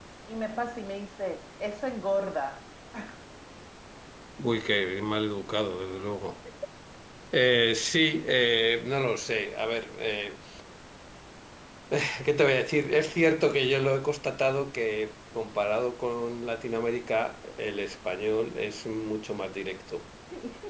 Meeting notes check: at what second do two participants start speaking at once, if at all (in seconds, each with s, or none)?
none